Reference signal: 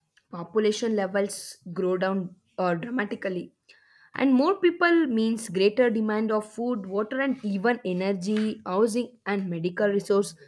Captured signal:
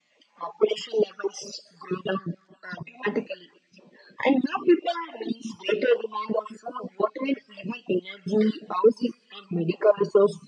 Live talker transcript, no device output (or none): none